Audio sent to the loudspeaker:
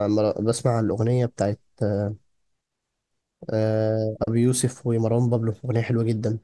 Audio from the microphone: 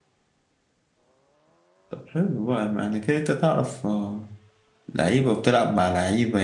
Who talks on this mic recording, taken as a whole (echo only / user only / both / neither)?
user only